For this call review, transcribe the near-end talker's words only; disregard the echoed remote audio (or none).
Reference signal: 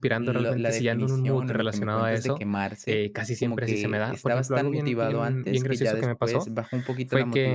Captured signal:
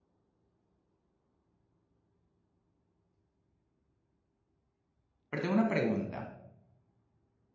Pero tengo una pregunta,